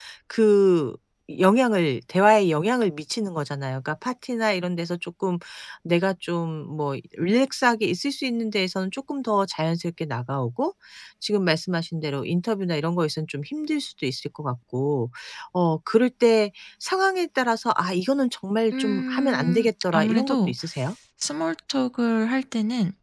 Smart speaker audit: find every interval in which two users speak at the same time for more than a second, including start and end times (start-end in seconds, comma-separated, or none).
18.7-20.5